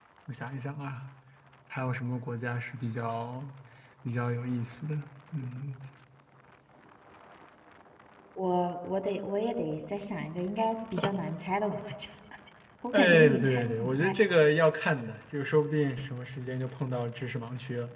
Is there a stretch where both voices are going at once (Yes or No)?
Yes